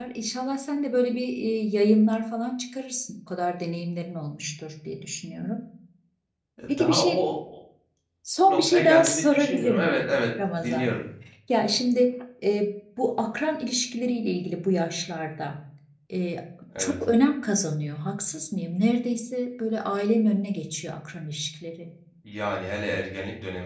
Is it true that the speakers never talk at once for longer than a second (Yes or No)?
No